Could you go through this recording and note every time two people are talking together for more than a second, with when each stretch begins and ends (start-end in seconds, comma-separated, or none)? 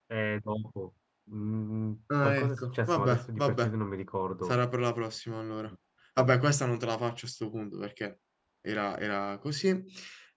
2.2-3.7